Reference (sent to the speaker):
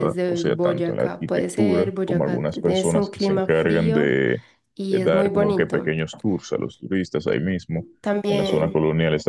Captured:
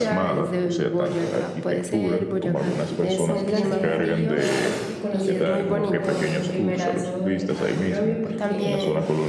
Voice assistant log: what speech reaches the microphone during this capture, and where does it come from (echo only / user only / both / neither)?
both